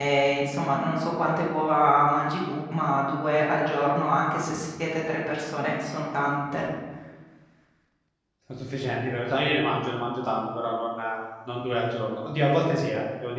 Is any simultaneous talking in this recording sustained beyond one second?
No

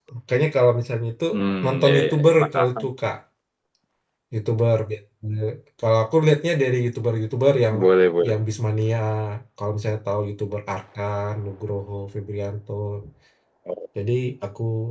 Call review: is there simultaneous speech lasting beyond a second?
Yes, from 1.6 s

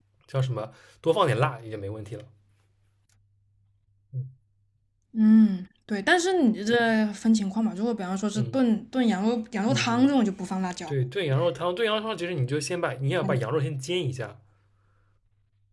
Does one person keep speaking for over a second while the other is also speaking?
No

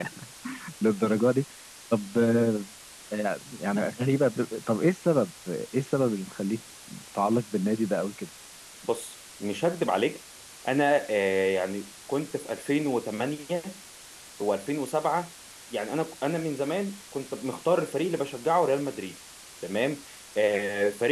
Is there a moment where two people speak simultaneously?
No

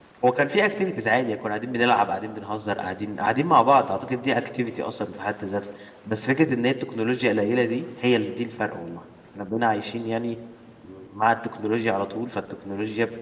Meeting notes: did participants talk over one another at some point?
No

